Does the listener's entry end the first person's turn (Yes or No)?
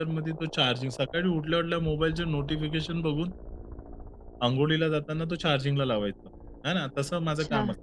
No